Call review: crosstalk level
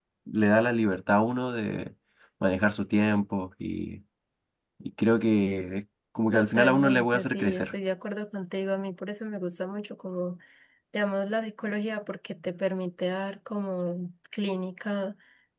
present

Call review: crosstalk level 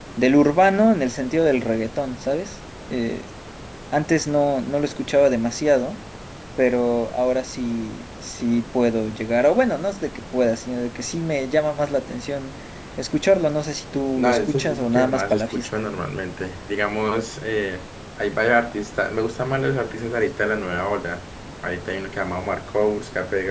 present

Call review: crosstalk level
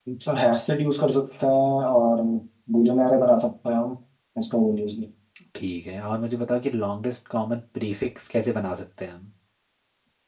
none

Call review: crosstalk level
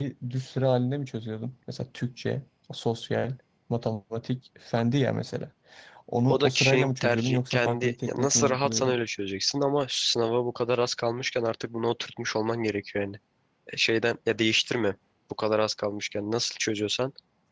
present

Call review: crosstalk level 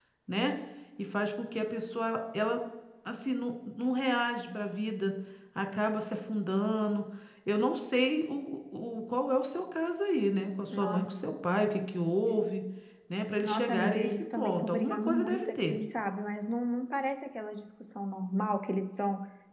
present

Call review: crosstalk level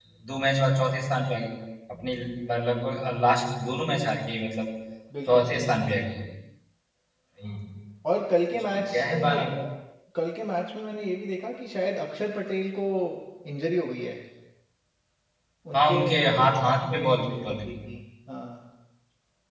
present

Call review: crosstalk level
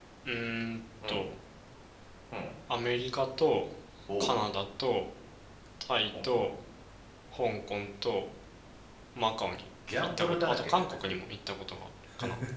present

